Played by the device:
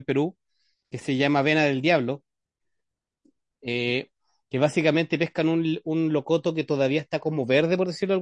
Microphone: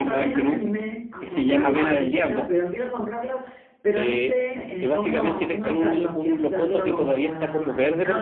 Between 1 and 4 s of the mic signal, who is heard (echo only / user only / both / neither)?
both